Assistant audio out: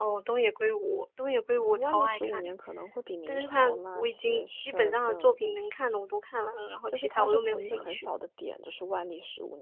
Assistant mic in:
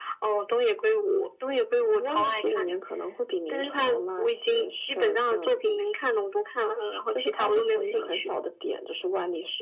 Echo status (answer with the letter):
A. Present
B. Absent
A